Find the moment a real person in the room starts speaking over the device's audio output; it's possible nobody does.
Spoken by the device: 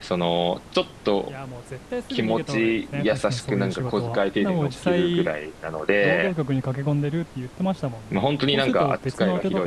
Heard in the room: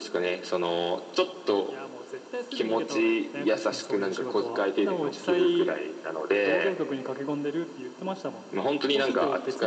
none

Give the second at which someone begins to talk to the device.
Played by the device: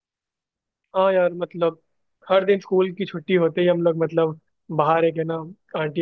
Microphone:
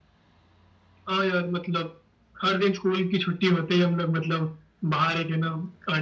none

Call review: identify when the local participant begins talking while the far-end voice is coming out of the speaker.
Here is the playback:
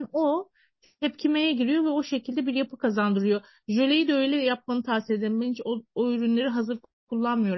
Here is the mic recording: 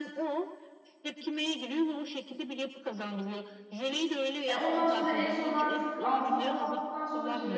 4.4 s

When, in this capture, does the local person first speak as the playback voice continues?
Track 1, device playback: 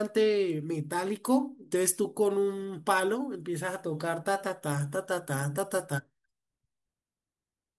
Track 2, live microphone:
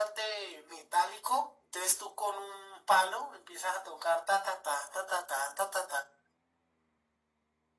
none

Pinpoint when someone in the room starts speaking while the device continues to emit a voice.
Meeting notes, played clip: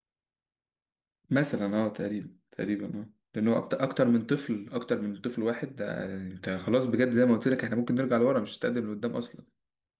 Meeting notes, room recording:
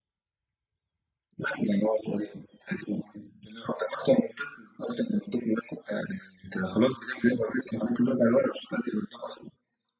none

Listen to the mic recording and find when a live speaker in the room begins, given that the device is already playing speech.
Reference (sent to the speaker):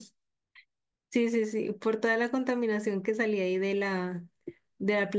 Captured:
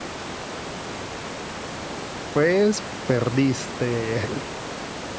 2.3 s

